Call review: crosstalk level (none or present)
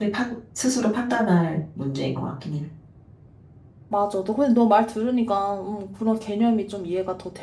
none